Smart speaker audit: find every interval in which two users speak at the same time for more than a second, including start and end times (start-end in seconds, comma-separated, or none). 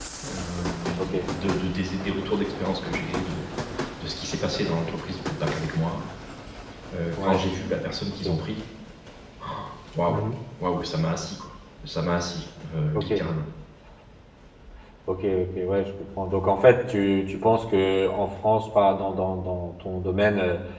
none